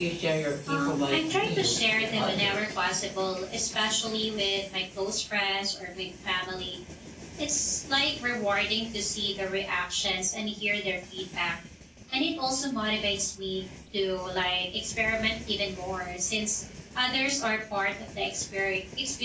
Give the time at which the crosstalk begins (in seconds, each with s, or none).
0.7 s